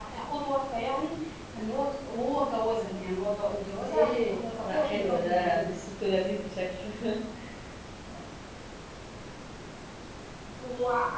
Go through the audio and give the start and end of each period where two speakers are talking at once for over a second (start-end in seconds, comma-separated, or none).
3.5-5.8